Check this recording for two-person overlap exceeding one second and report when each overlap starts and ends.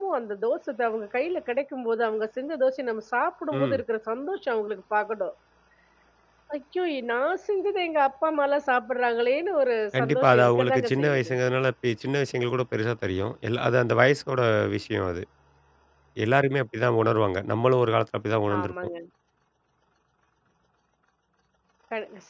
10.0-11.3

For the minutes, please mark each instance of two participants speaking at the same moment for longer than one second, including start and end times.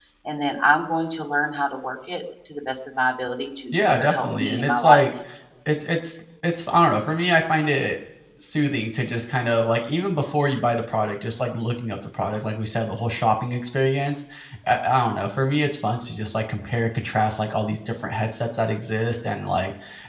3.7-5.1

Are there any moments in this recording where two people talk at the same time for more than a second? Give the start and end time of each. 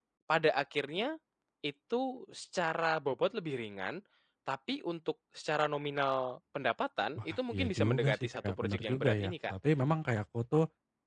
7.2-9.5

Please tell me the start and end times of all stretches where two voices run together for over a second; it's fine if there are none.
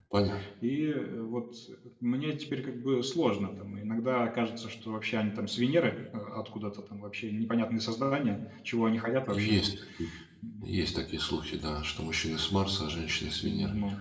none

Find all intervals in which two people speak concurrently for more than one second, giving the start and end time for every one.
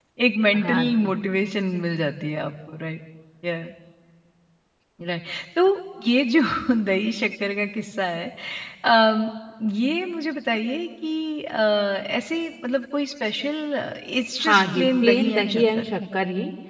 14.4-15.8

